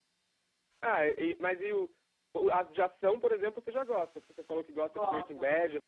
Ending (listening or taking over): listening